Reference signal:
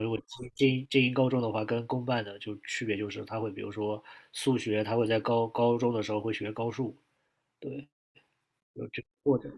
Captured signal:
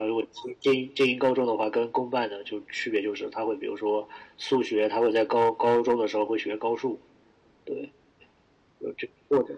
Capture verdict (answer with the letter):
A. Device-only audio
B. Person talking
A